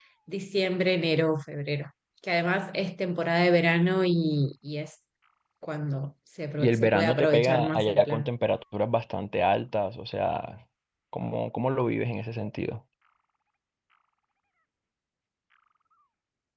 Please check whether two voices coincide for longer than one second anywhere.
Yes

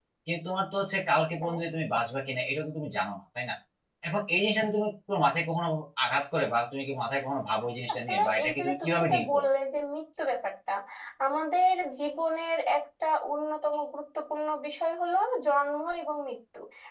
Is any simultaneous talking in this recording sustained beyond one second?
Yes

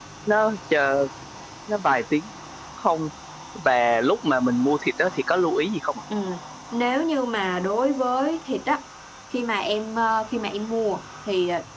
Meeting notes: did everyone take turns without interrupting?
Yes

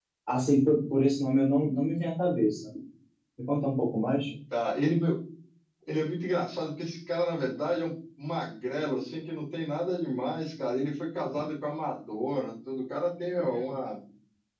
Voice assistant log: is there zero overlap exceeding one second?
Yes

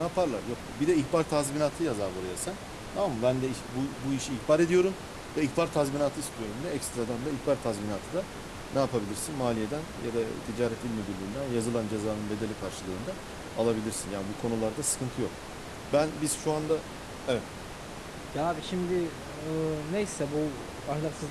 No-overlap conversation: Yes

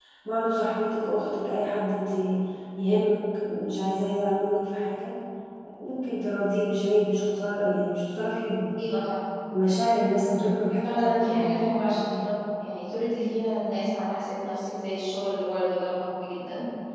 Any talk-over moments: Yes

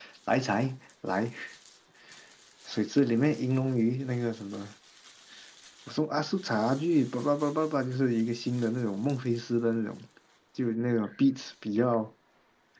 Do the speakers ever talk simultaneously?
No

